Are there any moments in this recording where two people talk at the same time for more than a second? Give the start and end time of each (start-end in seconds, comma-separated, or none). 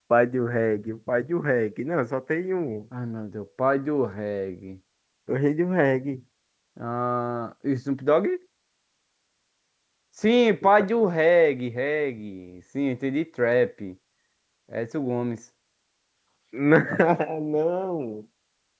none